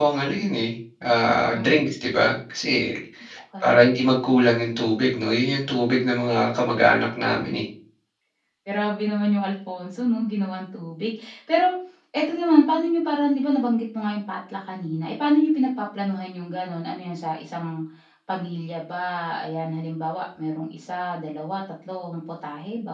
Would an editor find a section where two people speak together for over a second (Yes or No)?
No